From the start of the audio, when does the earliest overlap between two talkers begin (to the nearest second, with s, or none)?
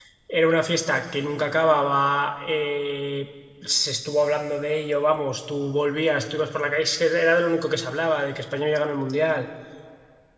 none